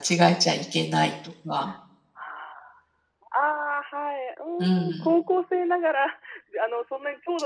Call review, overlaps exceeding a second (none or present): none